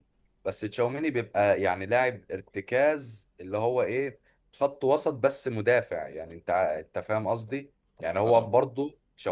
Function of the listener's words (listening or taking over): listening